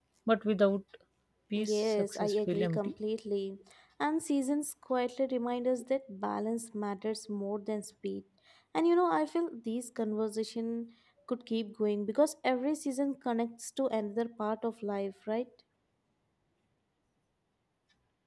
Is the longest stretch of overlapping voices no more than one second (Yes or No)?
No